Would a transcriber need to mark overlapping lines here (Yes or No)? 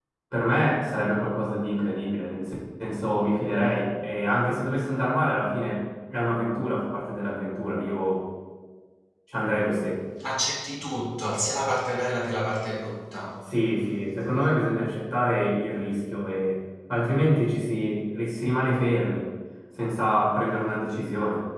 No